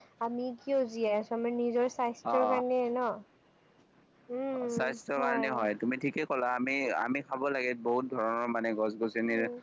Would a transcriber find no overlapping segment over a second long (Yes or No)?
Yes